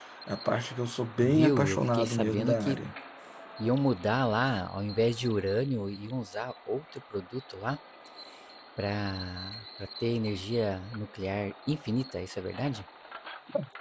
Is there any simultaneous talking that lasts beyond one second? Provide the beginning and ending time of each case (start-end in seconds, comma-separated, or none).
1.2-2.8